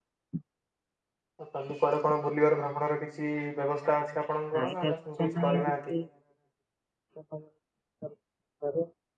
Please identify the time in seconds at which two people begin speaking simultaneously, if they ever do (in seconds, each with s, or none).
4.5 s